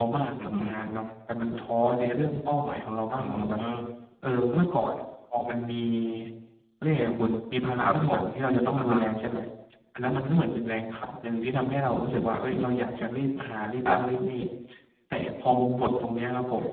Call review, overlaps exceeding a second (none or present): none